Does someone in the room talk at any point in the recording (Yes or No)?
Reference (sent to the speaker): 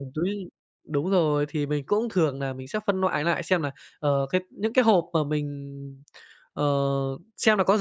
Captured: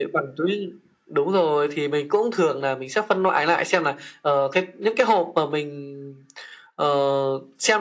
No